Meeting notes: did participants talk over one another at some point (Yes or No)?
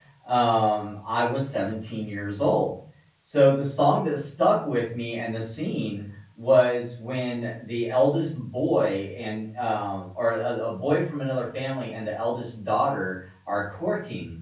No